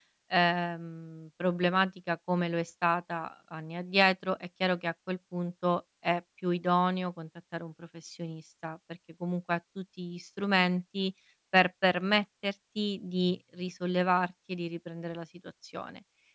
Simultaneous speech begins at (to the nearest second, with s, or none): none